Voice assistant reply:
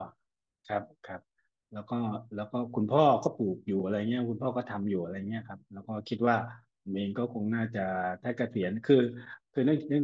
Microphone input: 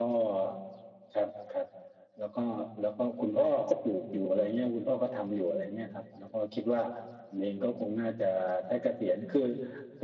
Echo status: present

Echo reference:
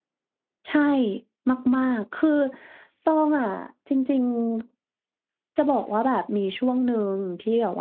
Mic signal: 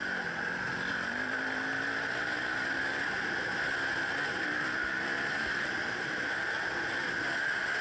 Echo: none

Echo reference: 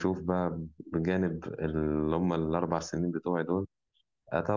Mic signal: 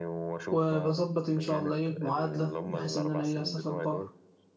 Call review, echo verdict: present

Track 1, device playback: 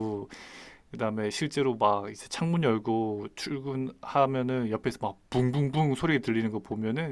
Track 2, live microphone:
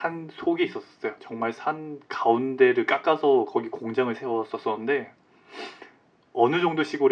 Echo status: none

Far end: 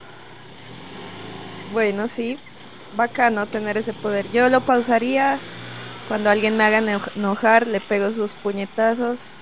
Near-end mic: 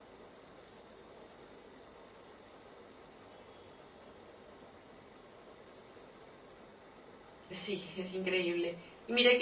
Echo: none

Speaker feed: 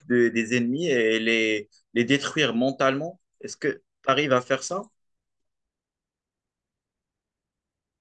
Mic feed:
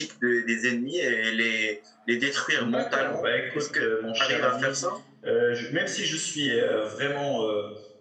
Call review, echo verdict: present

